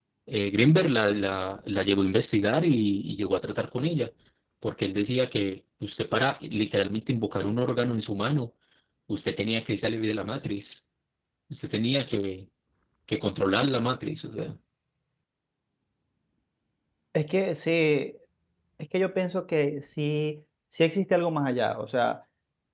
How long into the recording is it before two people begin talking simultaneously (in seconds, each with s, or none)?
none